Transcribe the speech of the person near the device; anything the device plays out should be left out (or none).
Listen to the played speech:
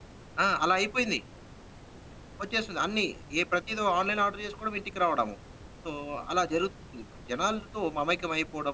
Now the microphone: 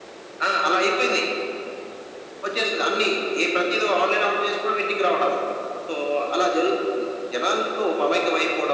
none